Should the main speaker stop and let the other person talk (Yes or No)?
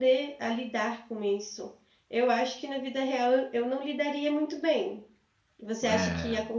No